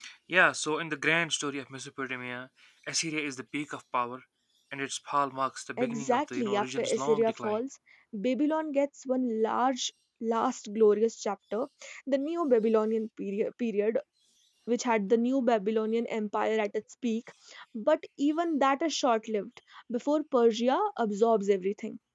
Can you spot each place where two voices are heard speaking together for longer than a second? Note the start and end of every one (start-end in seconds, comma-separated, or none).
5.8-7.6